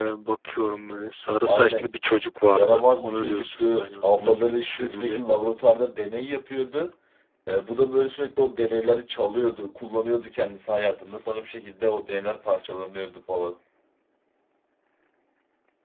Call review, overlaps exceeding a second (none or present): present